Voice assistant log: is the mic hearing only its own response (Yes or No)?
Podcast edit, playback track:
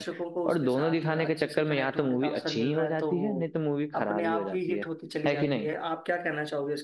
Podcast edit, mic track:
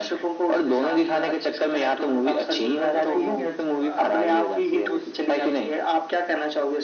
No